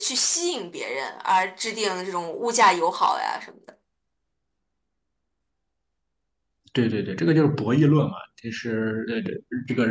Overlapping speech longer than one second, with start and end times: none

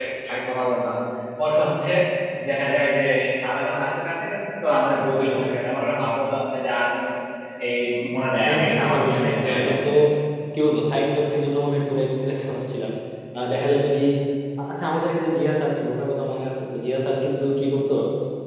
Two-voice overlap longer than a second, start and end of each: 8.4-9.8

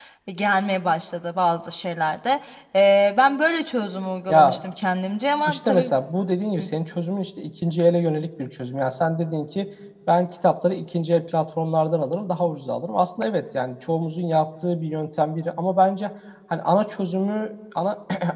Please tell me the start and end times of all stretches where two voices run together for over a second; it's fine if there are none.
none

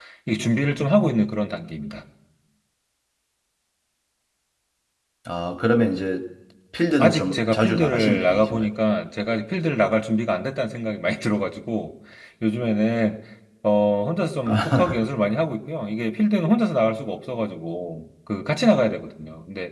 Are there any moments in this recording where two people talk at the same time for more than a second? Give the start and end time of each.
7.0-8.7

